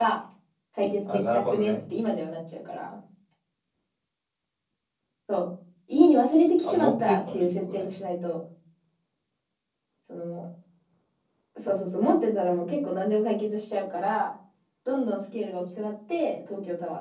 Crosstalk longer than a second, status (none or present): present